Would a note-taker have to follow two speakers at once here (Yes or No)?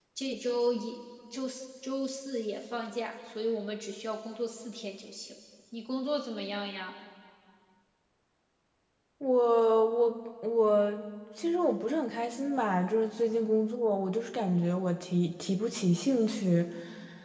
No